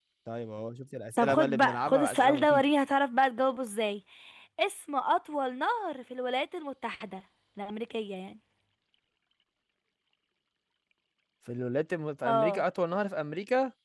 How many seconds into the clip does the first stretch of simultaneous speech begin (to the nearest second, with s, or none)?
1 s